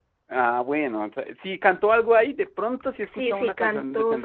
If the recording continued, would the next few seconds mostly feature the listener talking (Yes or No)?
Yes